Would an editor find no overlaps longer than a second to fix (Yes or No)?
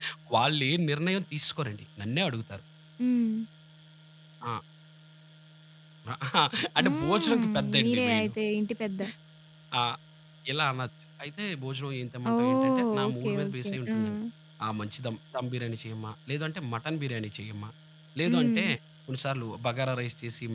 No